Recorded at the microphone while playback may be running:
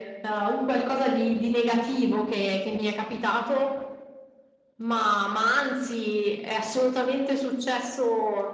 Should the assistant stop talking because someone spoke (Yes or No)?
No